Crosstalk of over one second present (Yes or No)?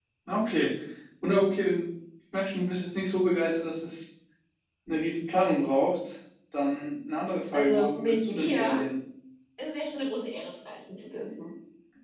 Yes